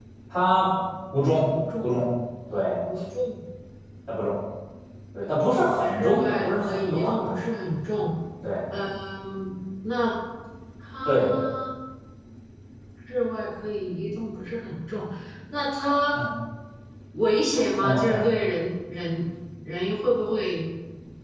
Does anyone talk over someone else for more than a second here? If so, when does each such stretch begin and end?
5.8-7.4

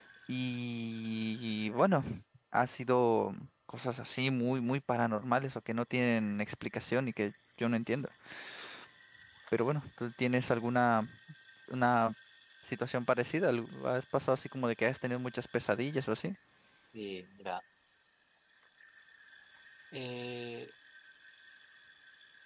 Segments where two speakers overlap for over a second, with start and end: none

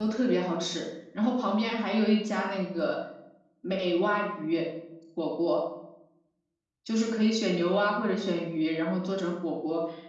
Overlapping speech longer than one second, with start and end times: none

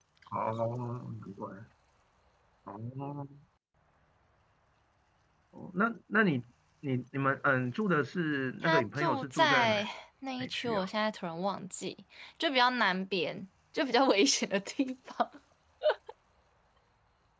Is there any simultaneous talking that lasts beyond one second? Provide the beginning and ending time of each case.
8.6-9.9

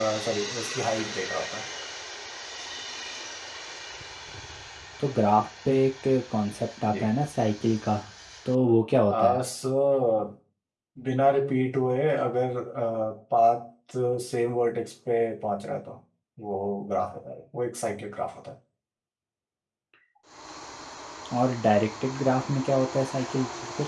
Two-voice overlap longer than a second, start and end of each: none

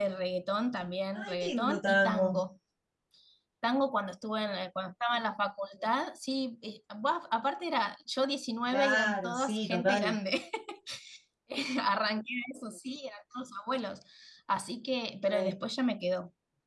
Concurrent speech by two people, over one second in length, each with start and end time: 1.1-2.4, 8.7-10.2

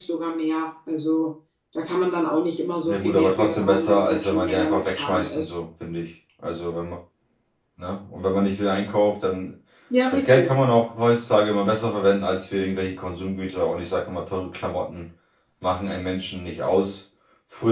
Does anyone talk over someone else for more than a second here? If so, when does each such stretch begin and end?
2.8-5.5

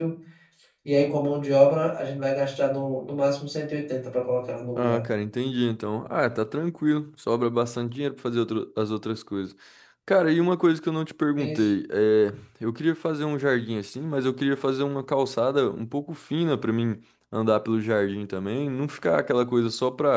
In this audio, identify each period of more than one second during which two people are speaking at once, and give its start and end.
none

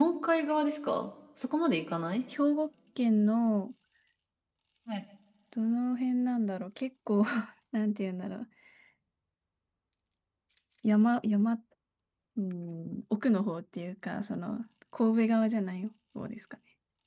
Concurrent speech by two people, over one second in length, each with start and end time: none

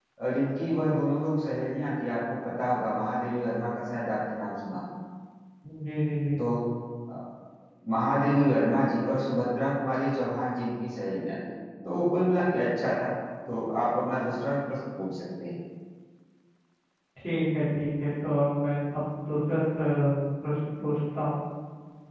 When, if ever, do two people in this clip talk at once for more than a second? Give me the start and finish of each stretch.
none

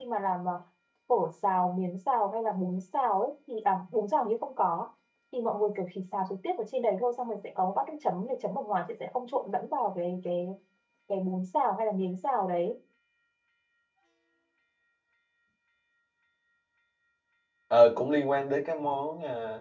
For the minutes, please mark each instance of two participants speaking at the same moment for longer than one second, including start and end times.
none

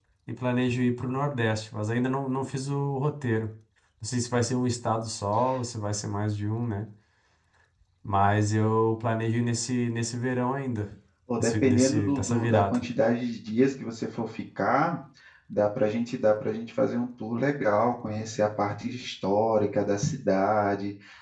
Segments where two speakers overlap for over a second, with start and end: 11.4-12.8

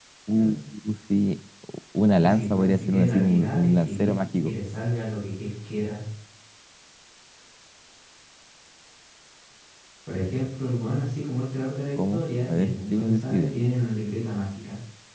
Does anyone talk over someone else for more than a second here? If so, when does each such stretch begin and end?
2.1-4.5, 12.0-13.6

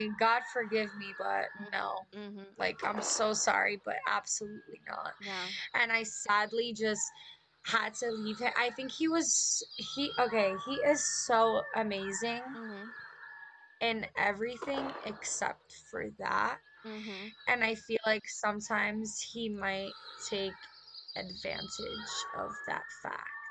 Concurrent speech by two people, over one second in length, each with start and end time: none

